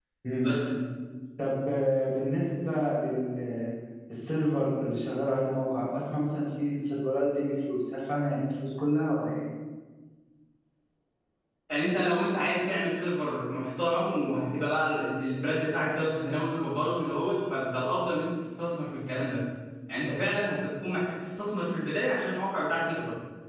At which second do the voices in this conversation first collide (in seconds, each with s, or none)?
none